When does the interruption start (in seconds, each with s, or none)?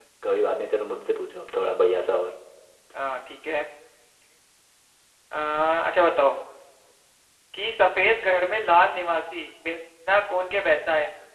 none